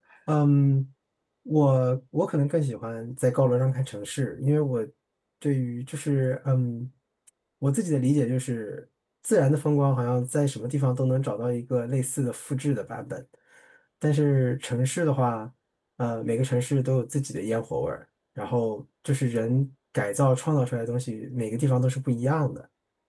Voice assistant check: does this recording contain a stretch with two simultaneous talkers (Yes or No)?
No